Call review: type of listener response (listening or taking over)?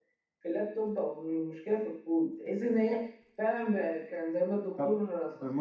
taking over